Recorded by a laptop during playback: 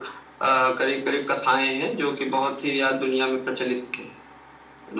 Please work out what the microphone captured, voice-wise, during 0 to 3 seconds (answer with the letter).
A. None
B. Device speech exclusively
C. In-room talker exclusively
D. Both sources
B